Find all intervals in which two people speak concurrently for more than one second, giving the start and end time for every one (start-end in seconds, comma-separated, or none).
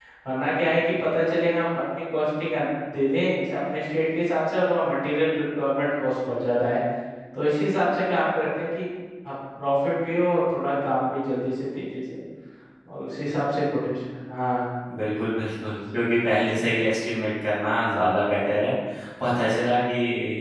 none